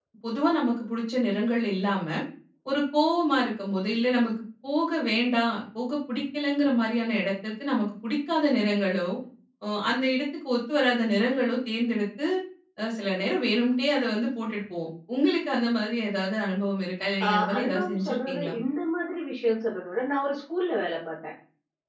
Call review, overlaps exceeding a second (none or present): present